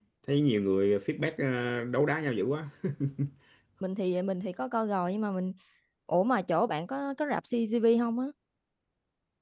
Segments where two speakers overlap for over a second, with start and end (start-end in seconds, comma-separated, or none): none